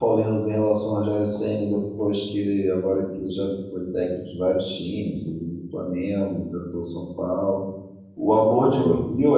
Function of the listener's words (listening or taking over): listening